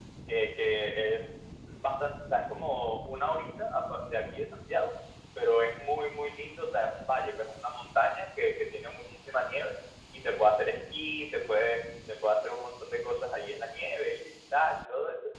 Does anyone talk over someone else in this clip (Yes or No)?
No